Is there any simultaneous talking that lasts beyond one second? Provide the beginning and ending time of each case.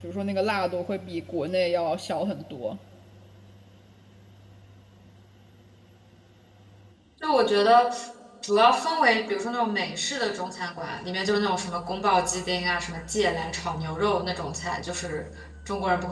none

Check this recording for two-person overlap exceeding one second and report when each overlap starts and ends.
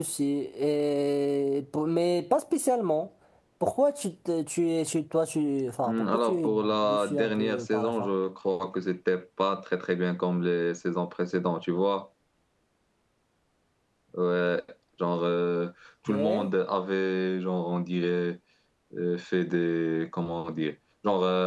5.8-8.1

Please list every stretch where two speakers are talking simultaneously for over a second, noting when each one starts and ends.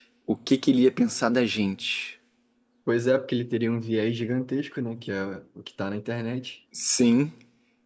none

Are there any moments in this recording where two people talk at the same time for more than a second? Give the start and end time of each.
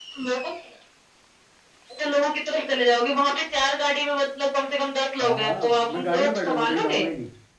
5.2-7.0

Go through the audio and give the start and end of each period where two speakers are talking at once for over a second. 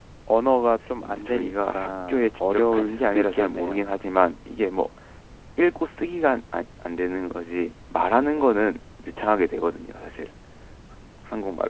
1.1-3.8

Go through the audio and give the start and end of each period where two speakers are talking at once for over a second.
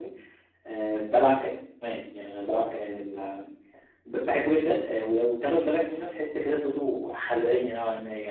none

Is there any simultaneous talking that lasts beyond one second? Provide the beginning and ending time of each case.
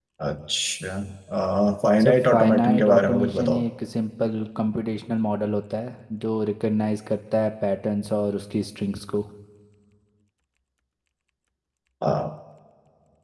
2.0-3.6

